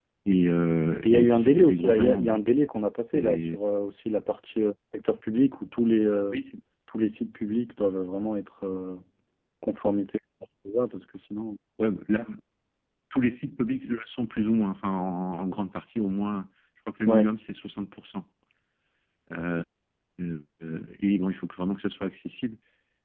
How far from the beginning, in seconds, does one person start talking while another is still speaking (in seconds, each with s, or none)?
1.0 s